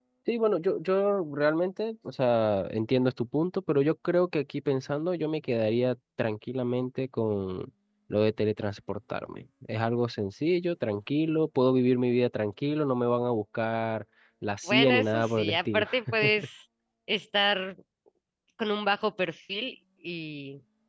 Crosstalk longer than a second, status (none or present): present